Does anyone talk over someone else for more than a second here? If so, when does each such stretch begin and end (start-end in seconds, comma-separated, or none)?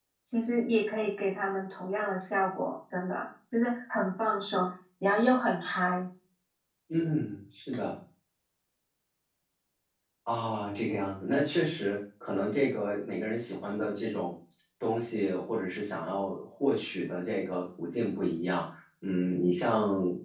none